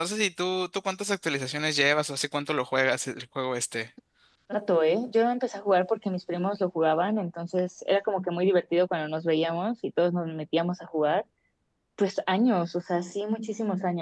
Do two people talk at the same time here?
No

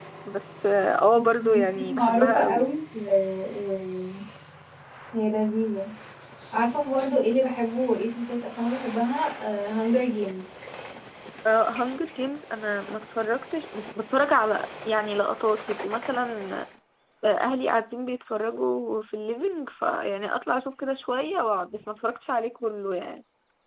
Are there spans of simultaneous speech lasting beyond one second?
Yes, from 1.4 s

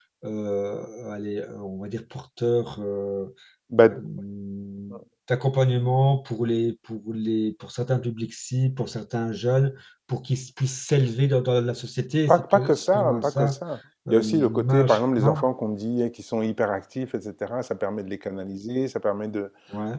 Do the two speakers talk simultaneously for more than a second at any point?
Yes, from 12.3 s

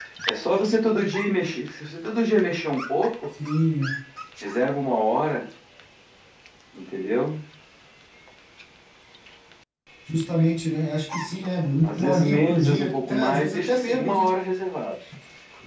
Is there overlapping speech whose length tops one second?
Yes, from 12.0 s

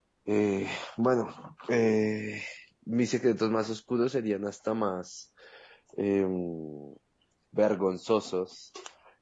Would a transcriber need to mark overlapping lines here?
No

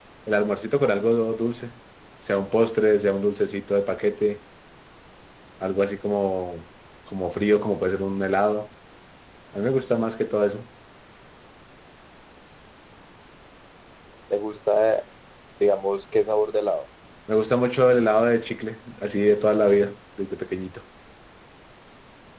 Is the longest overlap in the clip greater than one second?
No

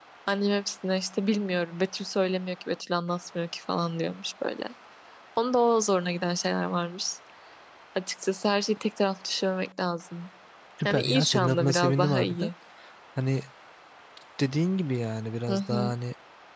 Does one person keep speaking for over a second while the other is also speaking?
Yes, from 10.8 s

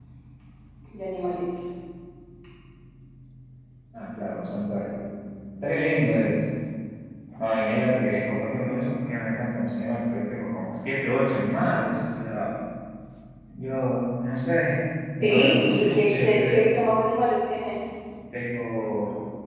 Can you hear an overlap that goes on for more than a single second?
Yes, from 15.2 s

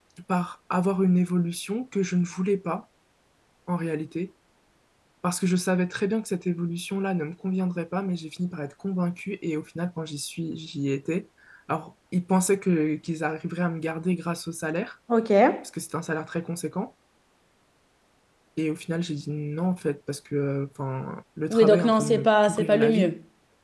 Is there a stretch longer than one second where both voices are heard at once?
Yes, from 21.5 s

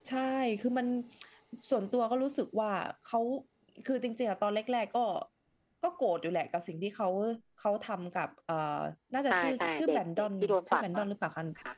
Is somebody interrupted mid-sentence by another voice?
Yes, from 9.3 s

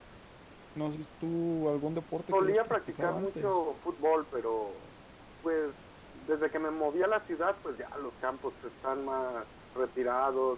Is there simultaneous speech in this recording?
Yes, from 2.3 s

